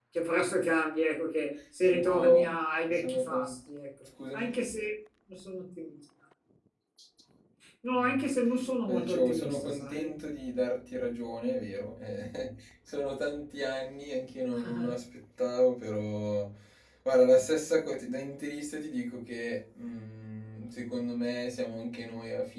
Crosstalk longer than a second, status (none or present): present